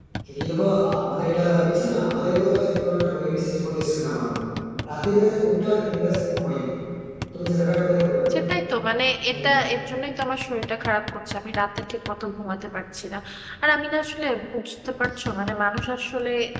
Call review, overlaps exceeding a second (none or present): none